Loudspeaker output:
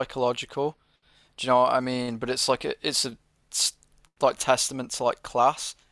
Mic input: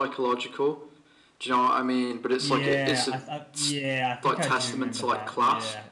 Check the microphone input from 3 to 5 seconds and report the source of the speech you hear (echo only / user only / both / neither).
both